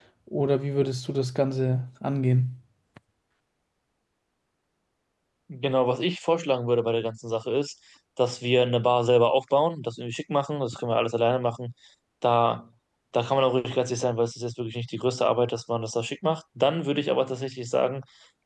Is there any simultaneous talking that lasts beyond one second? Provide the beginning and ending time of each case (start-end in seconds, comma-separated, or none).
none